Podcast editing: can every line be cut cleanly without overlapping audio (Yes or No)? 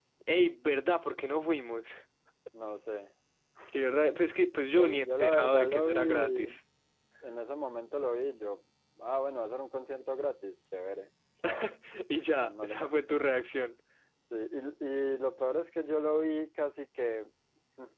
No